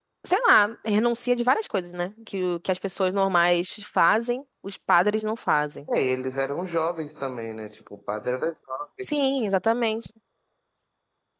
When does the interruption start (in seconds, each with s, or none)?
none